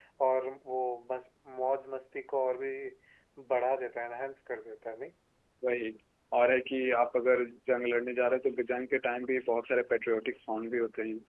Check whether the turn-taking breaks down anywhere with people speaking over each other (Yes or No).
No